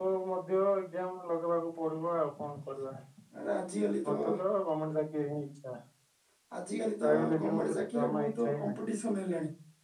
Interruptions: present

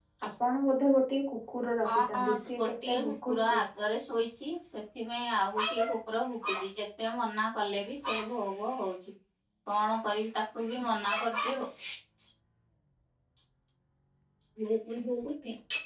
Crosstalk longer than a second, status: present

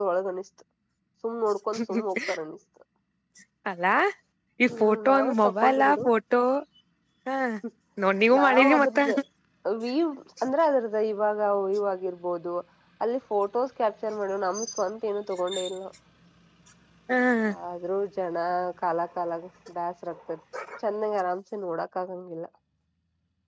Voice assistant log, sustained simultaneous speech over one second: present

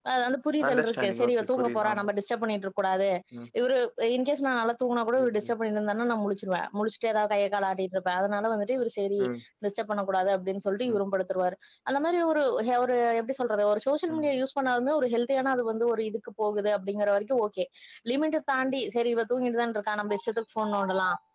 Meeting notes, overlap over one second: present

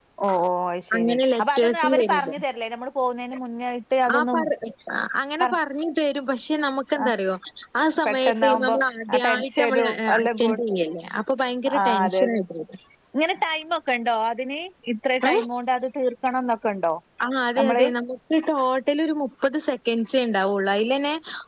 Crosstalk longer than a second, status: present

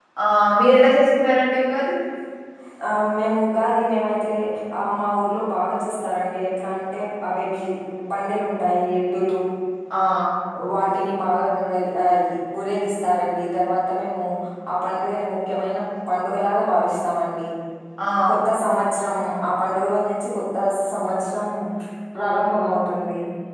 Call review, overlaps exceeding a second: none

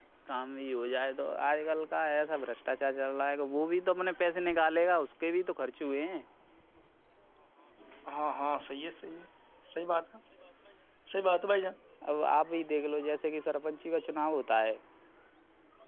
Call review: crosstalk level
none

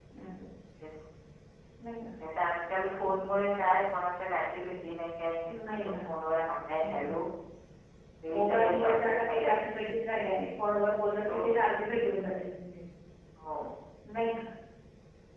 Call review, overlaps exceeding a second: present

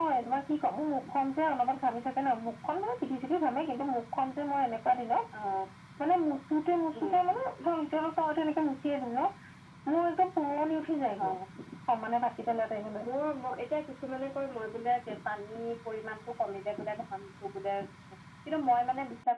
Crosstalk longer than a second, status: none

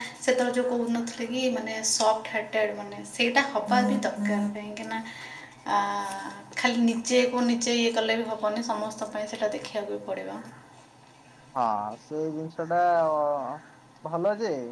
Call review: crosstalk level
none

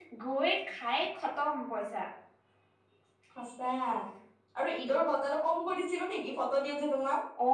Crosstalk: none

